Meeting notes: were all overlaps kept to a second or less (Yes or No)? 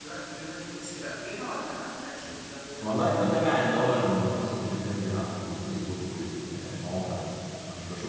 Yes